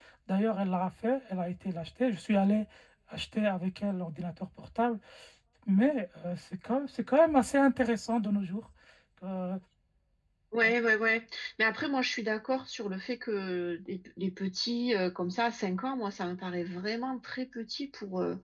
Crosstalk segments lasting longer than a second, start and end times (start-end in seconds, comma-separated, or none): none